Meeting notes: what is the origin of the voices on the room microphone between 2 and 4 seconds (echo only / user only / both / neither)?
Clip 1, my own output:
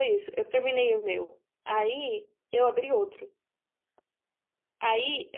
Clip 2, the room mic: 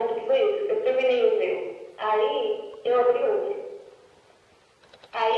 echo only